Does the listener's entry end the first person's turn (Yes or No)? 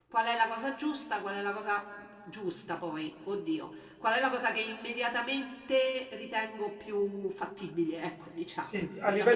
Yes